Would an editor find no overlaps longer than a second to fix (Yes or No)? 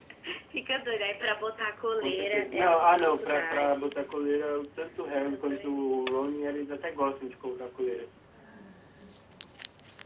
No